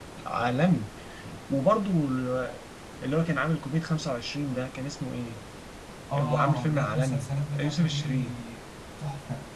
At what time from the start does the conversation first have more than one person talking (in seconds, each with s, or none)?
6.2 s